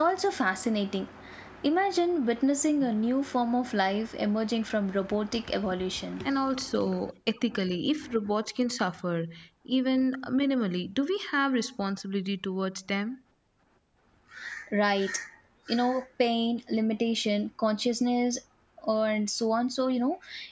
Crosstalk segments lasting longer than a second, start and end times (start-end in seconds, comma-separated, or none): none